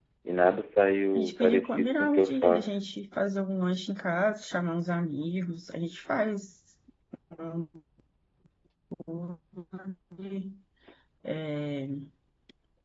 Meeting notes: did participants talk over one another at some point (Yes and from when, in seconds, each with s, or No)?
Yes, from 1.1 s